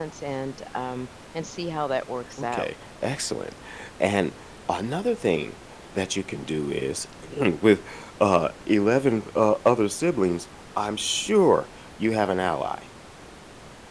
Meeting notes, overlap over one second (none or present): none